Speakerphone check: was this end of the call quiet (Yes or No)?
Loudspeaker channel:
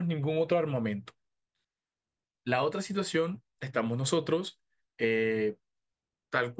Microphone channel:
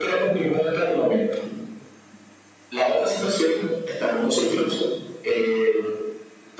Yes